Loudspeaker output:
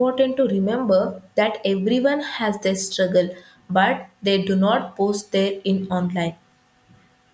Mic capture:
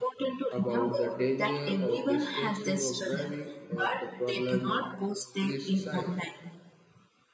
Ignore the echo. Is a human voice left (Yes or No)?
Yes